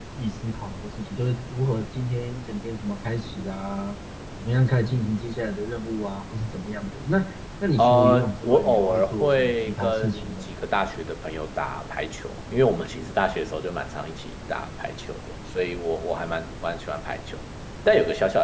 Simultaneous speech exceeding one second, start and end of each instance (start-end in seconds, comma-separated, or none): 7.8-10.4